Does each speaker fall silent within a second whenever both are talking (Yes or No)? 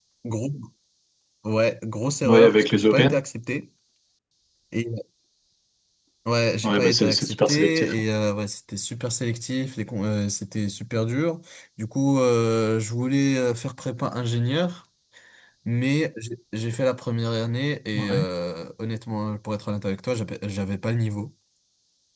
No